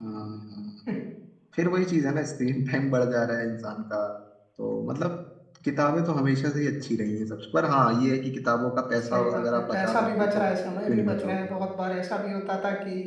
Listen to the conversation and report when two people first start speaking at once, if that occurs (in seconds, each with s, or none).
9.0 s